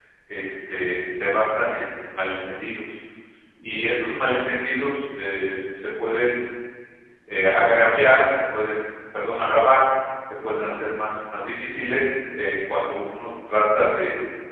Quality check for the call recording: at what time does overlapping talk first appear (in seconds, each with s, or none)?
none